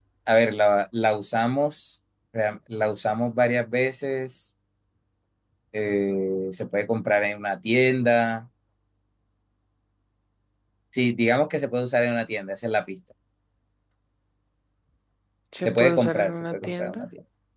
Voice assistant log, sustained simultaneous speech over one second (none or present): present